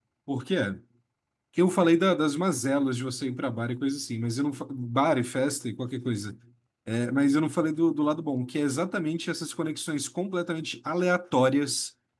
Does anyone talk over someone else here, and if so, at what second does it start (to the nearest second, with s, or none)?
none